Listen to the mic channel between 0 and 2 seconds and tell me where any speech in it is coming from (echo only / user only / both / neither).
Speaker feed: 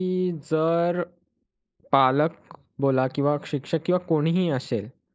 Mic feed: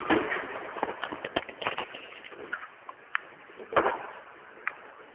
neither